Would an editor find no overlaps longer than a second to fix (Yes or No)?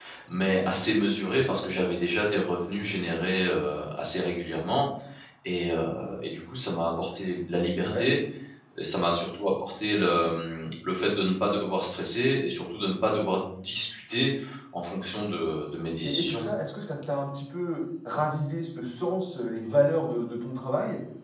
Yes